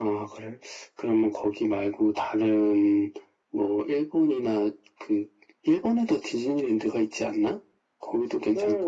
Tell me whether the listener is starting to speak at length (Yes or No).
Yes